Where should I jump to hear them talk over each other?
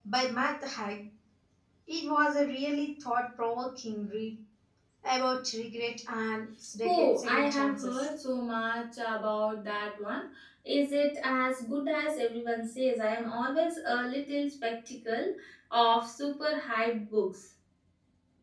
6.8 s

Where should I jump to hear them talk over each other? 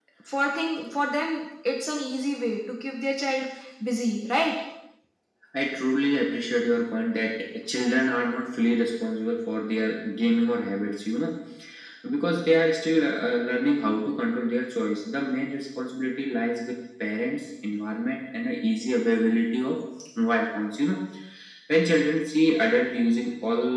none

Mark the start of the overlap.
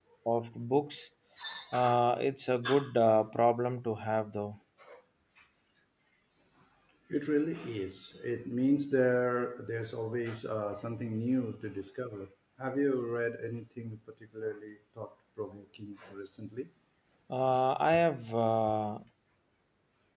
none

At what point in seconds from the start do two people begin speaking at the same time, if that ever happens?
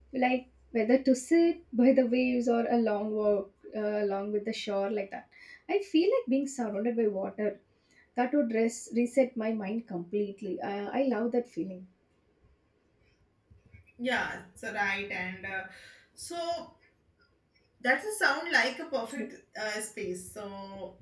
none

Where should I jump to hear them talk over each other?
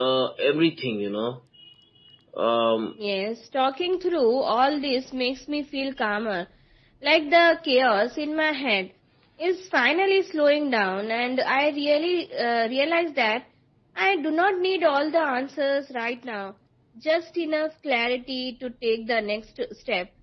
none

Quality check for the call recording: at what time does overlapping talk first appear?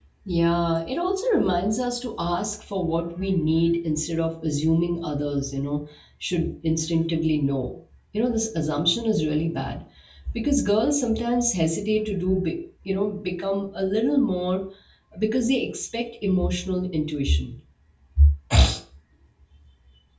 none

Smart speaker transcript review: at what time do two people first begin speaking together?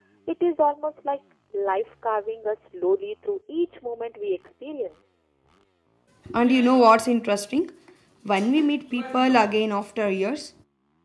none

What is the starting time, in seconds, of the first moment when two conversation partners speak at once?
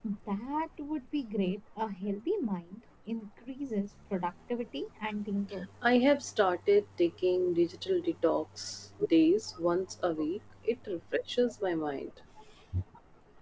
none

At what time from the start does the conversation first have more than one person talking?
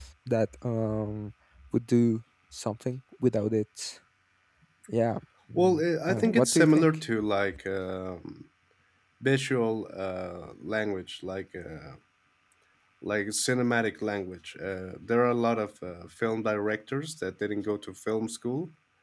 5.6 s

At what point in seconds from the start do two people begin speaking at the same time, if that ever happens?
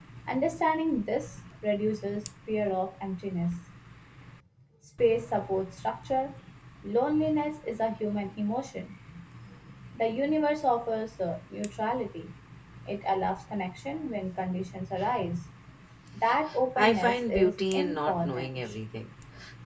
16.8 s

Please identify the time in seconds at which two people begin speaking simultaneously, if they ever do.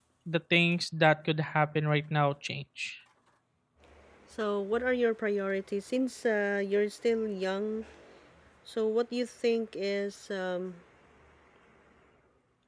none

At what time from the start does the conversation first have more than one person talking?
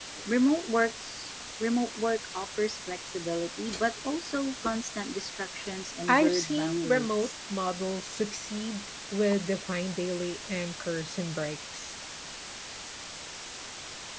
6.1 s

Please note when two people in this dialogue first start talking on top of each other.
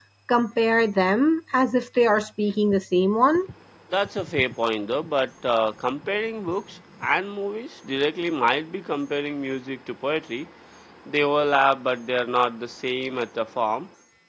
none

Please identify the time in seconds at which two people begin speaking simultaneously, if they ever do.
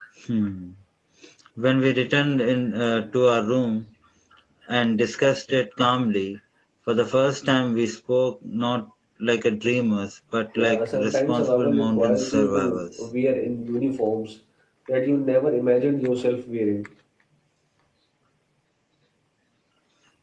10.6 s

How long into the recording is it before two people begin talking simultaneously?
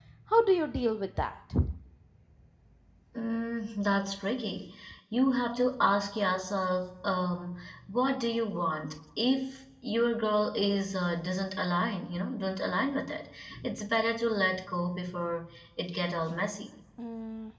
none

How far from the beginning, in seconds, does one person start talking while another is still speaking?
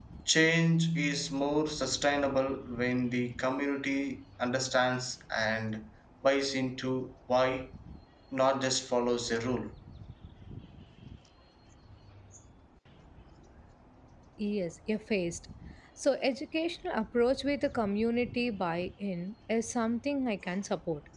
none

